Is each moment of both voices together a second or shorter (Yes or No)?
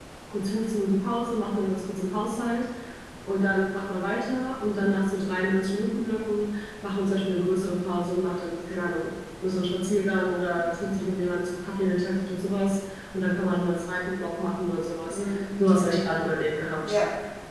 Yes